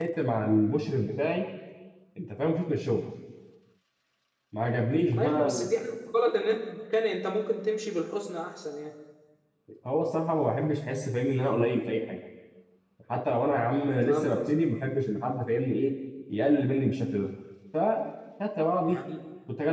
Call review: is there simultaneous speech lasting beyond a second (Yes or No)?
No